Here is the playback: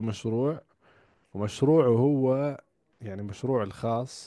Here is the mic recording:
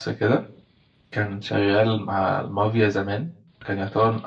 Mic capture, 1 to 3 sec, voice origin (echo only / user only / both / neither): user only